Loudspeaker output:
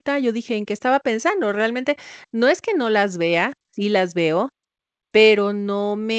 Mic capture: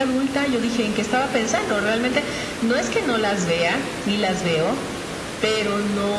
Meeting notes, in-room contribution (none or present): none